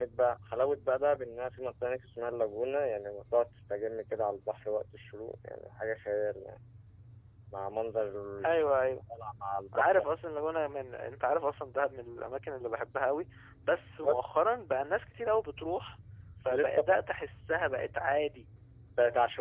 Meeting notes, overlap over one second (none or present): none